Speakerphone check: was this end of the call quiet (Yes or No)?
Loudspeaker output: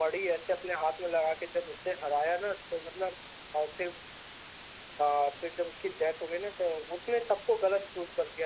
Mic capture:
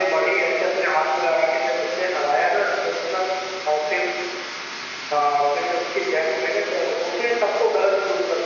Yes